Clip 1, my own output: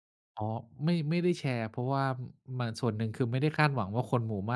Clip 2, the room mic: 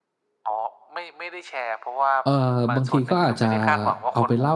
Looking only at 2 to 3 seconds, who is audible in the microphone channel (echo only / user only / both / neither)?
both